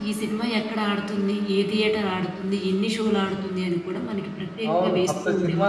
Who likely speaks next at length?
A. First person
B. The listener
B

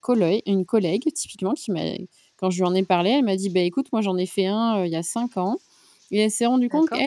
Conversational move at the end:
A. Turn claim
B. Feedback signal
B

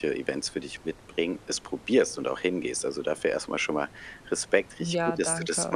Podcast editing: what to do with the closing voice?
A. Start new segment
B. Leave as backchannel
B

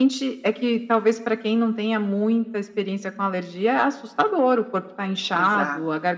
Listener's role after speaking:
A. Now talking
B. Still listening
B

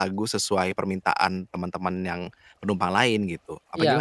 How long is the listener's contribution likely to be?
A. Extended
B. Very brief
A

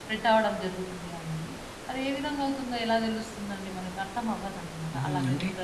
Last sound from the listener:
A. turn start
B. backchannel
A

